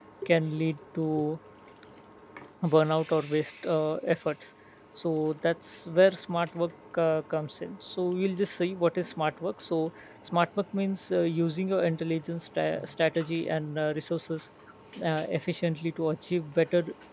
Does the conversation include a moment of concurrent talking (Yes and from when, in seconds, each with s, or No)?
No